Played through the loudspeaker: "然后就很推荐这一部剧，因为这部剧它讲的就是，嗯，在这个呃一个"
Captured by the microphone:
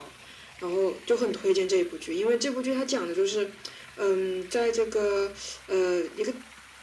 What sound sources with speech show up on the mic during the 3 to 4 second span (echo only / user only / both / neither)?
echo only